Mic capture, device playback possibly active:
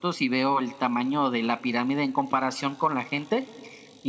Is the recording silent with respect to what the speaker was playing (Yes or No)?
No